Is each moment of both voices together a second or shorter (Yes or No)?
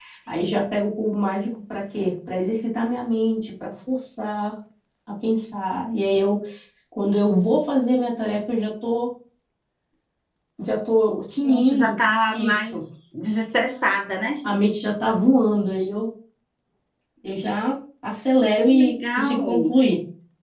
No